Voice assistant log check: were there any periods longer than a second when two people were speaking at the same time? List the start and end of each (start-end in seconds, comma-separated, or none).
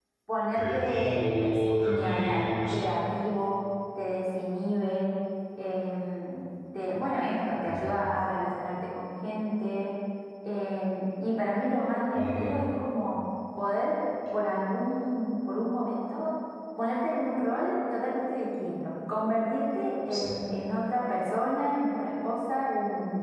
0.6-2.8